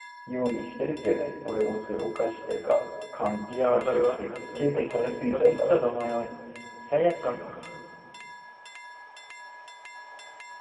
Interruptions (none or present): present